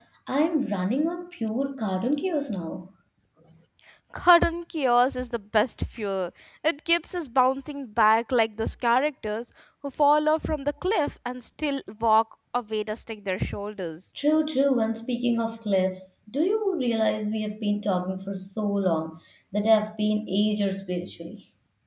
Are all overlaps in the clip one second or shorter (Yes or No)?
Yes